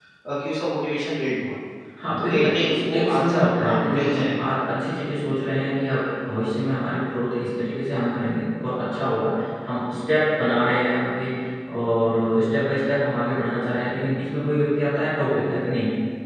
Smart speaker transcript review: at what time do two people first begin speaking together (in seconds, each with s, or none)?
2.2 s